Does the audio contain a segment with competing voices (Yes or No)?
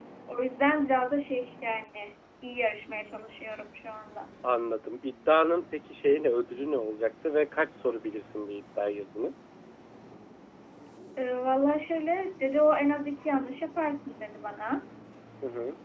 No